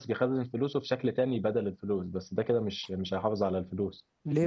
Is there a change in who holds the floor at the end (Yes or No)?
Yes